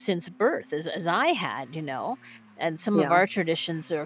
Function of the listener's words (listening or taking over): listening